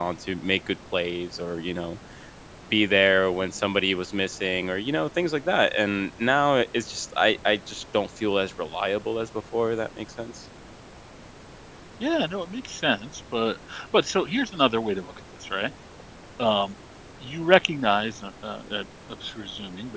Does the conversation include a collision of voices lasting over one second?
No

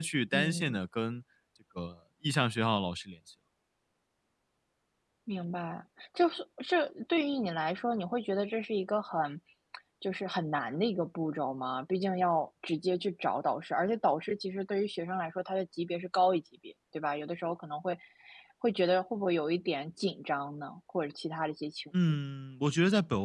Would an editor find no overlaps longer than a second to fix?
Yes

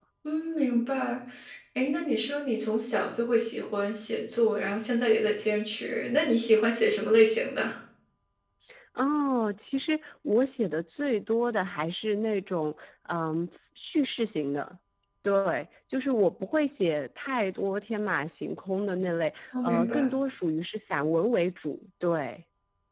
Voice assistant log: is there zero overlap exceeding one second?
Yes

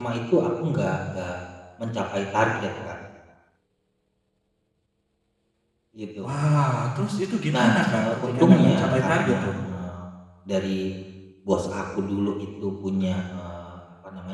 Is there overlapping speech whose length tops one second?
Yes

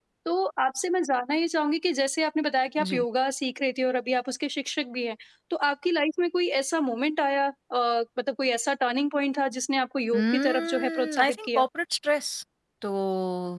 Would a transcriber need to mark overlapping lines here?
Yes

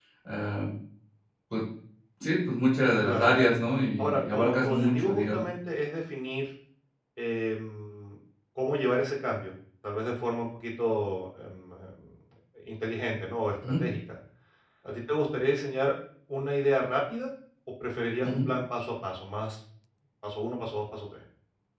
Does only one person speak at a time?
No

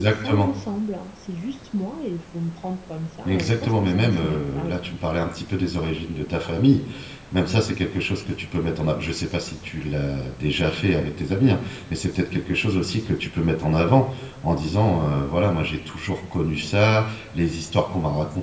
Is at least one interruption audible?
Yes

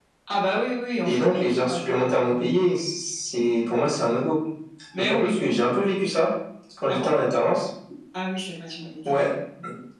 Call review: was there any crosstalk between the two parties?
Yes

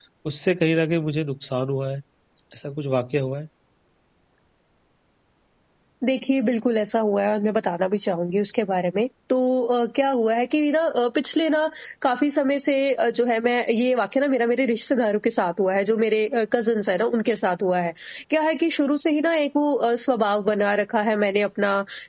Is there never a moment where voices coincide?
Yes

